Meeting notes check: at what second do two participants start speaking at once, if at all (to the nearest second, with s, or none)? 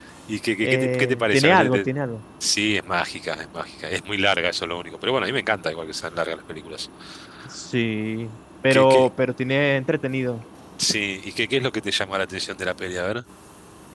1 s